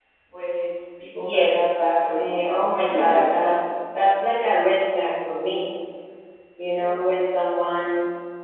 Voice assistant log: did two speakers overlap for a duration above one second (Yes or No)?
Yes